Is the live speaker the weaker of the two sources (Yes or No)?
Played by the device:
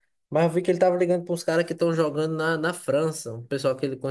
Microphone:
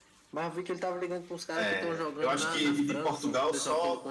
No